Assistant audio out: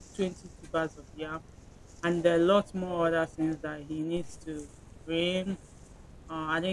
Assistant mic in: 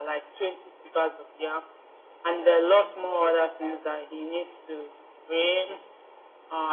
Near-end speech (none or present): none